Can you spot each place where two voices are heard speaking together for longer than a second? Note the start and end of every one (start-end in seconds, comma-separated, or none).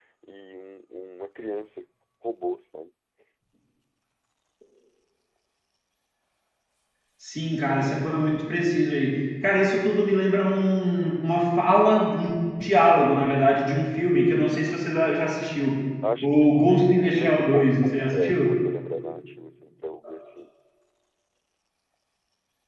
16.2-18.6